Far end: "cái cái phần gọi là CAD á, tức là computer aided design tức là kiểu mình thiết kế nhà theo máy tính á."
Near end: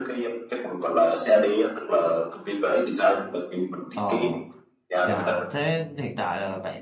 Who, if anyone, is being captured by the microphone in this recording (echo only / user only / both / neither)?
both